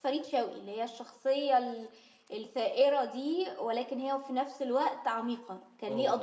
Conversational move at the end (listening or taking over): taking over